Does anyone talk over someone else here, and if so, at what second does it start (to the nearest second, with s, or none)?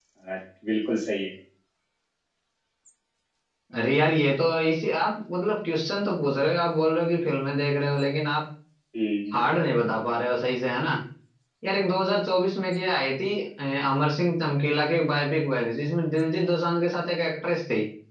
none